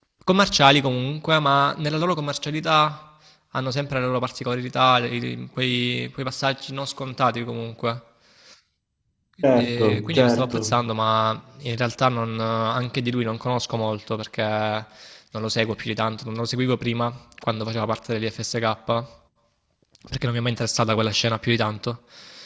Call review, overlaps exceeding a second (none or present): present